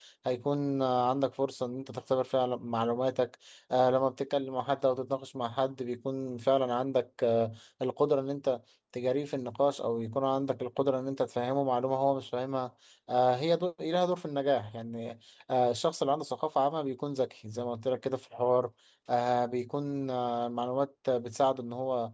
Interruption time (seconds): none

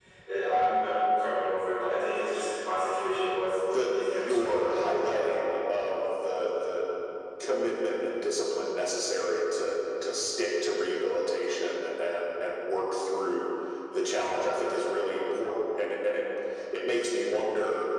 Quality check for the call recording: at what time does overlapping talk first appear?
4 s

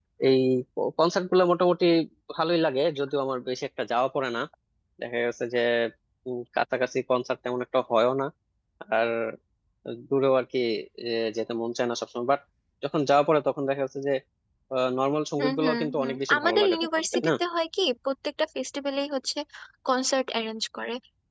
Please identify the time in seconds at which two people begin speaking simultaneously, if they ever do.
15 s

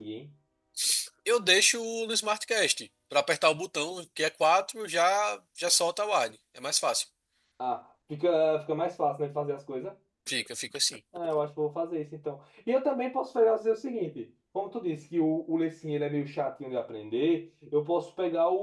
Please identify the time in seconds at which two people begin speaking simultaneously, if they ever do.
none

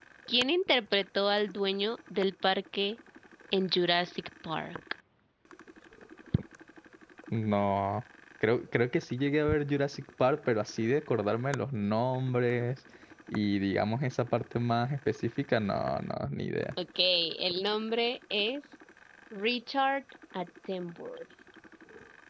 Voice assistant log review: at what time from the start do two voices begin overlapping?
none

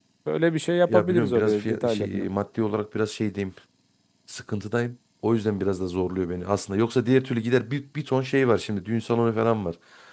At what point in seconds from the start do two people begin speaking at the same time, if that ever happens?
1 s

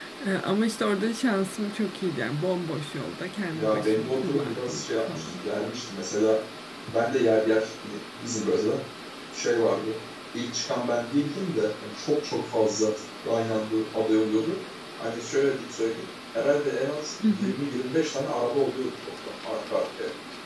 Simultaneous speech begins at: 4 s

